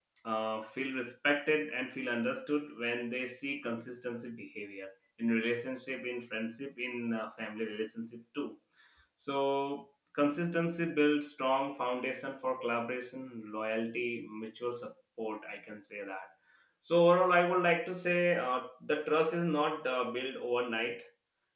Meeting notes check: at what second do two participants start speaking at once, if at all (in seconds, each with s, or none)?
none